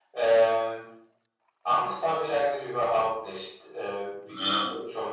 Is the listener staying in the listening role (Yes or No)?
Yes